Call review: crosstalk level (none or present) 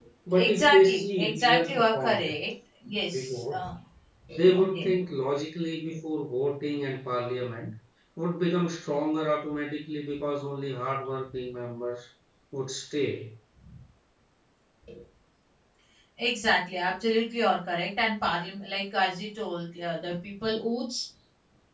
present